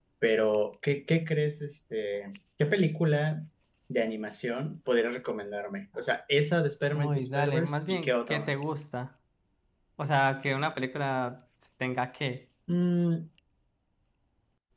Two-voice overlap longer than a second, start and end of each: 6.9-8.6

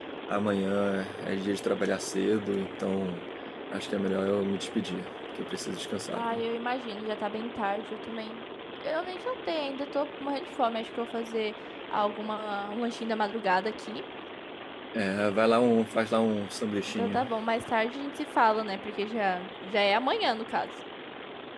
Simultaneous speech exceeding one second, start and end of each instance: none

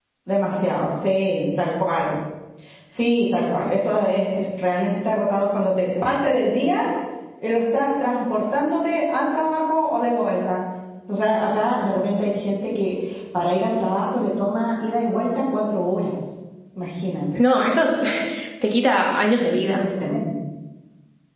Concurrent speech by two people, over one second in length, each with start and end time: none

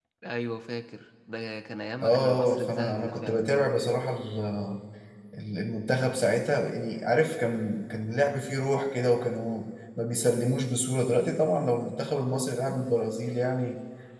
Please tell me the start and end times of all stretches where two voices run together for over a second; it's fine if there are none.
2.0-4.0

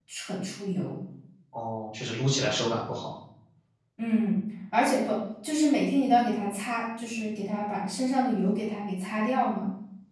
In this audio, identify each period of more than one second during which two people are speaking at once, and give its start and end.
none

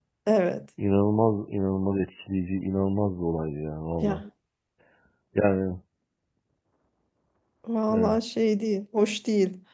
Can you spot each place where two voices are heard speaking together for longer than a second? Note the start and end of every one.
none

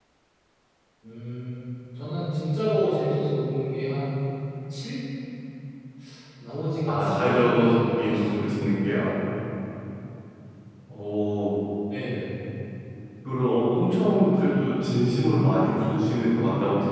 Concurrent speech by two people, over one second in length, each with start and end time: 6.9-8.6

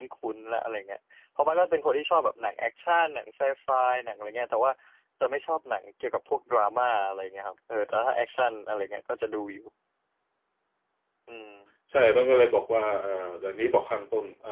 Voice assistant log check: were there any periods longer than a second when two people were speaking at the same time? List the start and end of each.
none

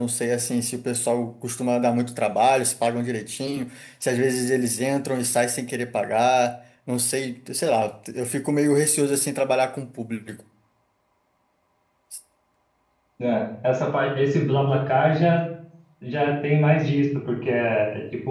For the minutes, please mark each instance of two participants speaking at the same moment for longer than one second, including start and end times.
none

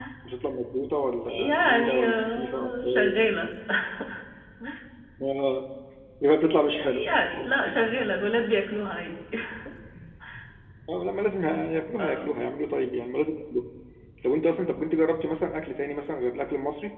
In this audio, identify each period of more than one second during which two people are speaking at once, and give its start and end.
1.3-3.1

